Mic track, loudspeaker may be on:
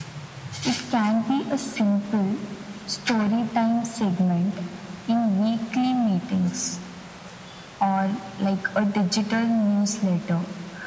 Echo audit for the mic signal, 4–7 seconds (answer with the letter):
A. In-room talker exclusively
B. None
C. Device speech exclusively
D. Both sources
C